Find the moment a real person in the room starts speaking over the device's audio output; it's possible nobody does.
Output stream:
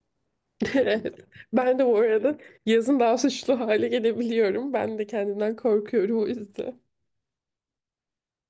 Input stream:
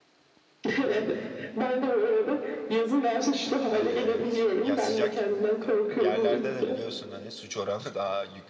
4 s

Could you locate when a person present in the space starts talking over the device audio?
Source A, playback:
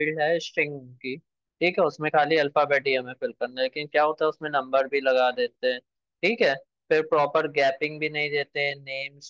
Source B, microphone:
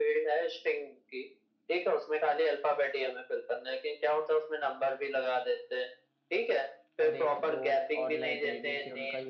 7 s

